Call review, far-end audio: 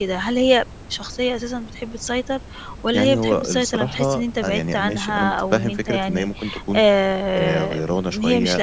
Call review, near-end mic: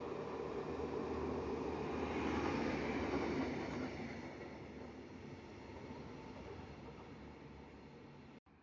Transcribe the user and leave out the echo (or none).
none